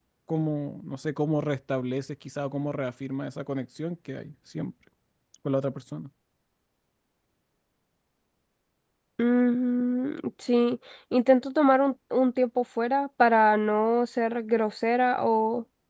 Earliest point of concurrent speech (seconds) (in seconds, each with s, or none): none